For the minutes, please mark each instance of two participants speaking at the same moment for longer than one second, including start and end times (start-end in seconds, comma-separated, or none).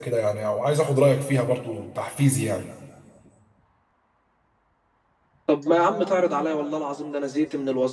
none